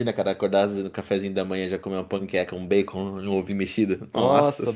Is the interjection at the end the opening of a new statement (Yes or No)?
Yes